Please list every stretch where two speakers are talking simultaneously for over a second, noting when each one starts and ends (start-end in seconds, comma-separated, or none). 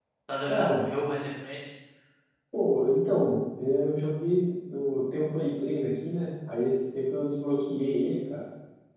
none